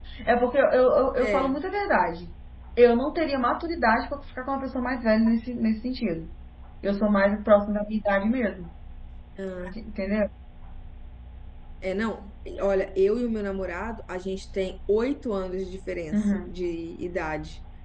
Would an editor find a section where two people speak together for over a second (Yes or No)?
No